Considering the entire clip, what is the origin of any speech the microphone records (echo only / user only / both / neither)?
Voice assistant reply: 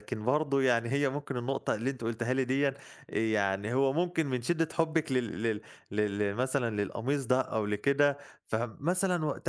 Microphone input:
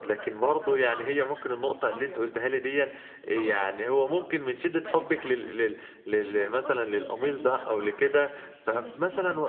both